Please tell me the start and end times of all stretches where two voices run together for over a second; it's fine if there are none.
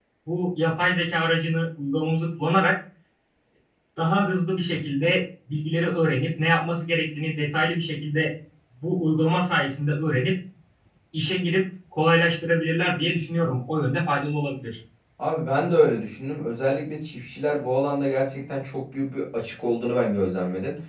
none

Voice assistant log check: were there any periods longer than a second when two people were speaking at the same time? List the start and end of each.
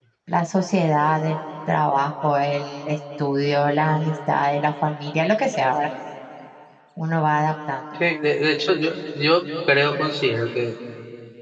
none

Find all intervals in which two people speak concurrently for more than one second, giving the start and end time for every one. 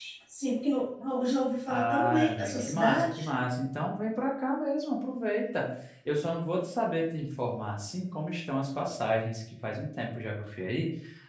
1.7-3.3

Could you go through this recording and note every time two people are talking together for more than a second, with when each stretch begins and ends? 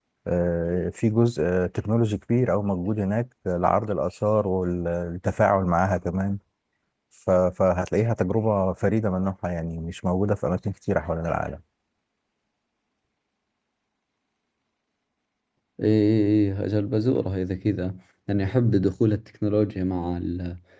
none

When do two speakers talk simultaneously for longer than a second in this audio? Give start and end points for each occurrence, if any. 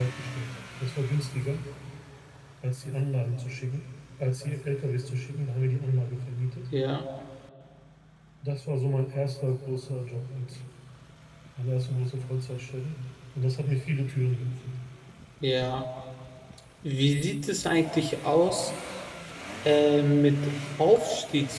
none

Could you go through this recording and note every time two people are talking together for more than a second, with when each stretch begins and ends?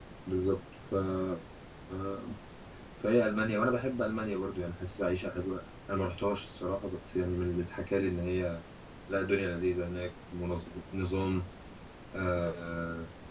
none

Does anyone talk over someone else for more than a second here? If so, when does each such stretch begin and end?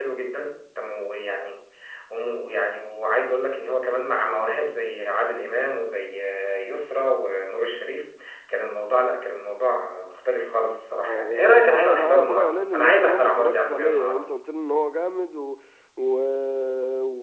11.1-14.2

